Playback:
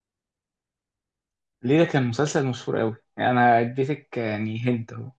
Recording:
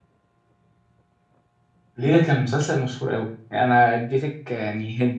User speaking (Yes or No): No